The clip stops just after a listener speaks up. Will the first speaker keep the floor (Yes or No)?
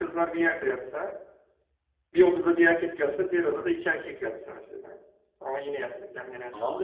No